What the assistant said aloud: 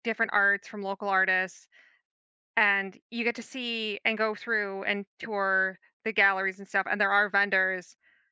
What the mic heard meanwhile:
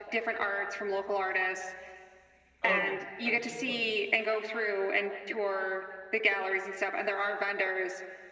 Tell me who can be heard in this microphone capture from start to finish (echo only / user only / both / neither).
both